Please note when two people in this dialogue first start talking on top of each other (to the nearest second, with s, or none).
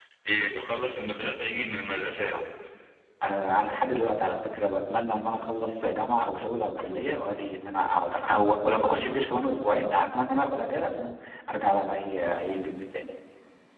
none